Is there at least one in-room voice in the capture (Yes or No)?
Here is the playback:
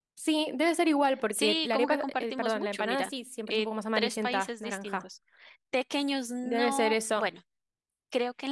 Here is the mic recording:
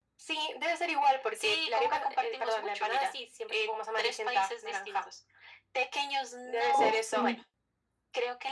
Yes